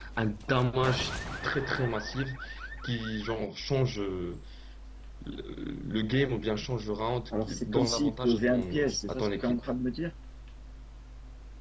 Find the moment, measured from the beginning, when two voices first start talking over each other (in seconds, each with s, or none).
7.3 s